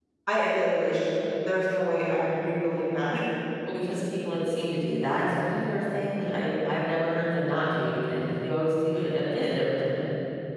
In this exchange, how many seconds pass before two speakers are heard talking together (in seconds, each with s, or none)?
none